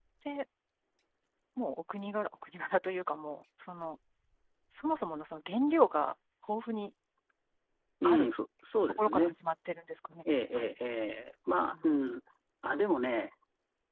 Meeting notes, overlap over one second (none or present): none